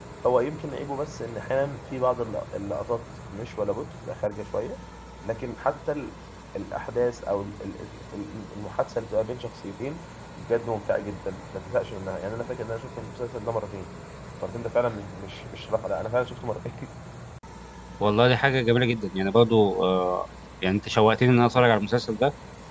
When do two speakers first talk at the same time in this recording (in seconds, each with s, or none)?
none